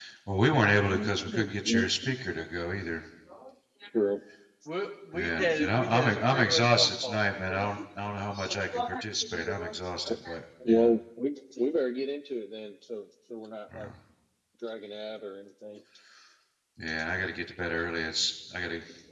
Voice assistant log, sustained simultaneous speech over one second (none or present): present